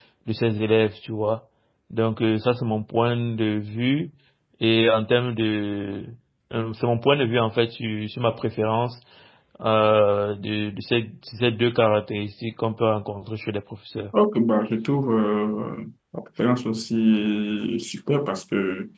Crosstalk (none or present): none